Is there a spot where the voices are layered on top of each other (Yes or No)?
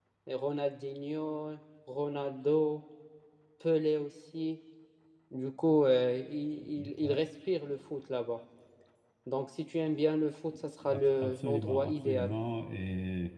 Yes